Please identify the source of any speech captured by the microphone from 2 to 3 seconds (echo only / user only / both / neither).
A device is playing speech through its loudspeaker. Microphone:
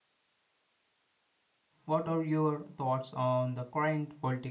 user only